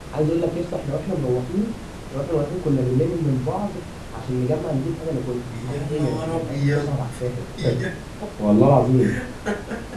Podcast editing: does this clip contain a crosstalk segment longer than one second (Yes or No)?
Yes